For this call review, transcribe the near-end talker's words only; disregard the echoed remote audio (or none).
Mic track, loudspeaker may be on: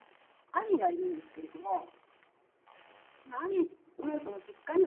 none